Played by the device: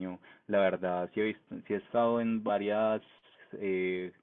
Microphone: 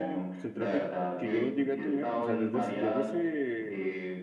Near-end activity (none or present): present